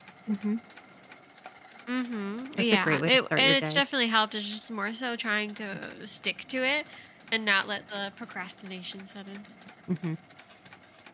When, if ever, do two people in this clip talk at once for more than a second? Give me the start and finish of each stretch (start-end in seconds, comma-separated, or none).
2.6-3.8